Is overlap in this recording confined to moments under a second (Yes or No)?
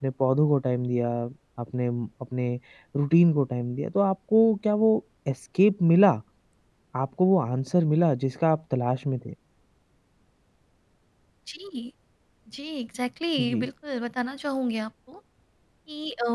Yes